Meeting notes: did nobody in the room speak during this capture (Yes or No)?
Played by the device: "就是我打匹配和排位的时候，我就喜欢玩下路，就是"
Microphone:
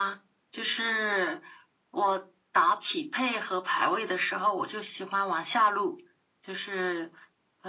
Yes